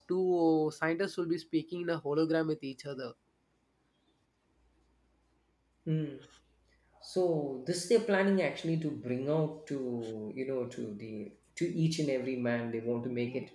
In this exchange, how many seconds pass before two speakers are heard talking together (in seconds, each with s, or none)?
none